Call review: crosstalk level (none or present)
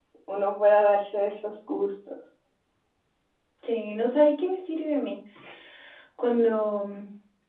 none